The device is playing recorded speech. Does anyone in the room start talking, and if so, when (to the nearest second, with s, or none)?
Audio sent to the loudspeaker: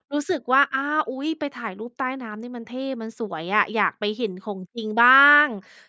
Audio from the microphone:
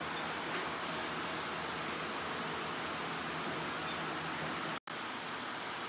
none